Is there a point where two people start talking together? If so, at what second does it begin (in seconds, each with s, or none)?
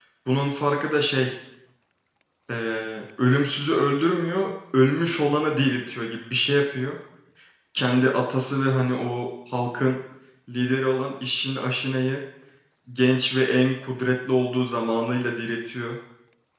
none